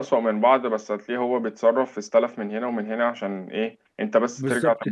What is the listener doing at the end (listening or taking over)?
taking over